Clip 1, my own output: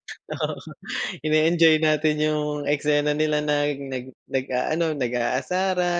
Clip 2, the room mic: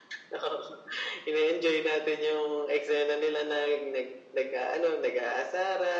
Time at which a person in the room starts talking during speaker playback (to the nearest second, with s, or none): none